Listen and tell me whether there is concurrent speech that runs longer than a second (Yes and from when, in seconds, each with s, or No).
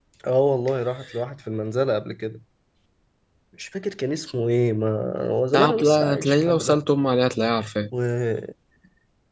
Yes, from 5.5 s